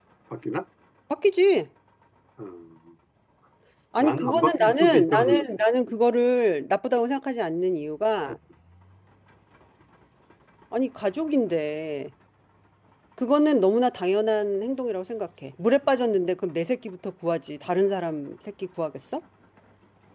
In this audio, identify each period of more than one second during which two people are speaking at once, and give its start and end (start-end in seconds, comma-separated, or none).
4.0-5.4